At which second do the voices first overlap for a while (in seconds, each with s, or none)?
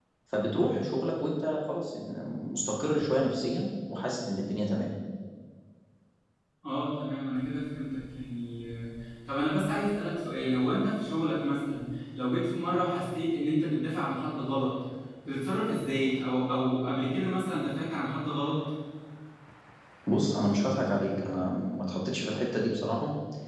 none